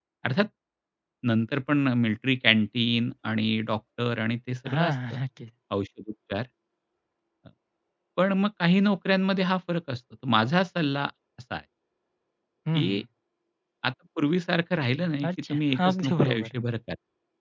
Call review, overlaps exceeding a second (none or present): present